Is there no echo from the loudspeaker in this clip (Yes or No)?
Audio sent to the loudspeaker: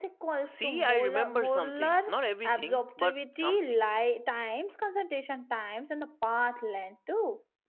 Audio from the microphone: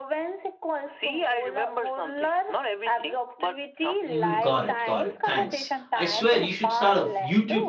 No